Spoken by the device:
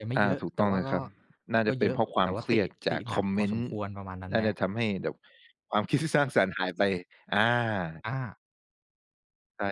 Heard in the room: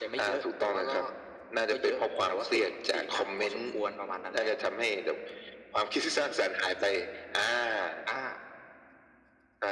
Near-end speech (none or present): none